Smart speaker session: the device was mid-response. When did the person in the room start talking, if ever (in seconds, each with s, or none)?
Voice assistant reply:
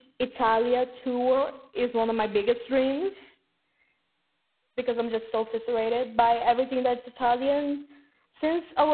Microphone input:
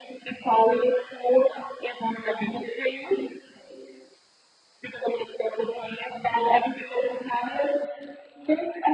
none